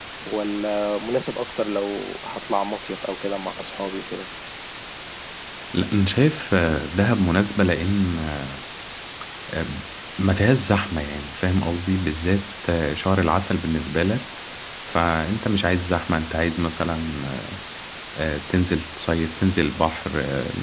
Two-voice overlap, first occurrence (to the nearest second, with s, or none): none